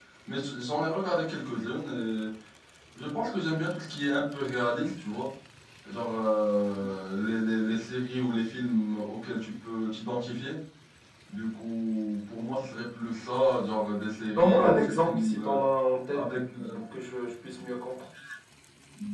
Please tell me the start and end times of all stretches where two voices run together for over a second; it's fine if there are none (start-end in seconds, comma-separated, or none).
14.4-15.6